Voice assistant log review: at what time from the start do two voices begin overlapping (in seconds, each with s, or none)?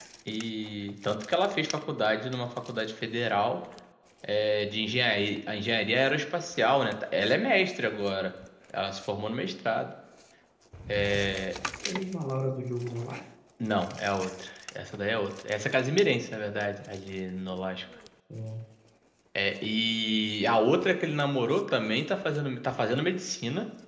none